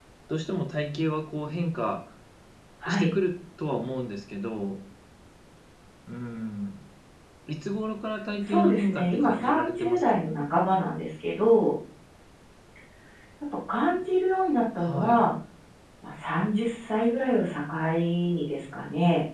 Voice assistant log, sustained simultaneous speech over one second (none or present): present